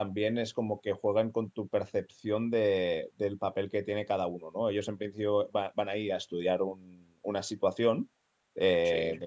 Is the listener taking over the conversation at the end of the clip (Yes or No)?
No